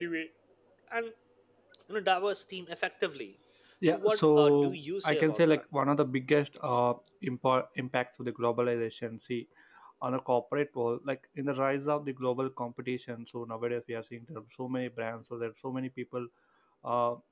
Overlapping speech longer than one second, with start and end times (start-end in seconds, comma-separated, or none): 3.9-5.6